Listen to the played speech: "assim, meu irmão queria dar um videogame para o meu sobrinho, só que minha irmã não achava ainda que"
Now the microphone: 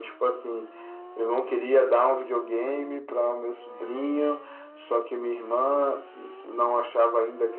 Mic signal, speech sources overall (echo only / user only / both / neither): echo only